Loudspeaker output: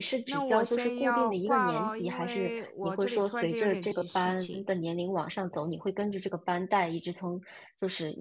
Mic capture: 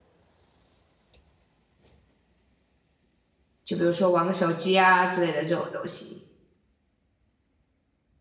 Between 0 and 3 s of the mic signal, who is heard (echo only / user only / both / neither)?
neither